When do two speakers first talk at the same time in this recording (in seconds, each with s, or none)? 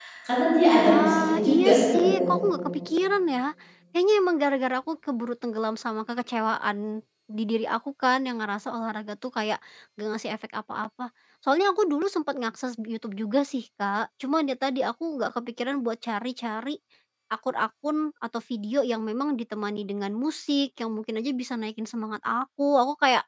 0.8 s